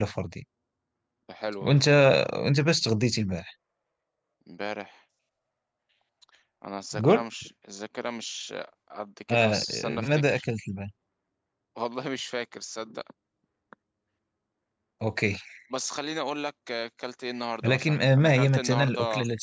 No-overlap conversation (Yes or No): No